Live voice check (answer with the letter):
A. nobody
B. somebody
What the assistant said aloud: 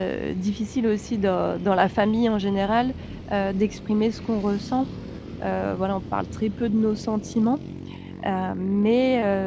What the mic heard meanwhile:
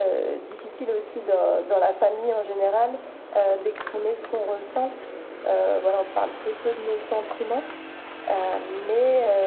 A